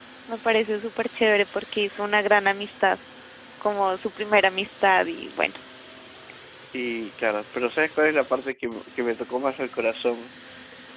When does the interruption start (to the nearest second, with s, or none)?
none